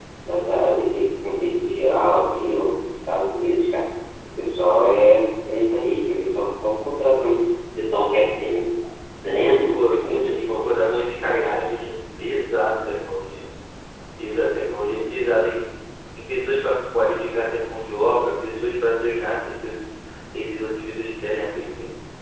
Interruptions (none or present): present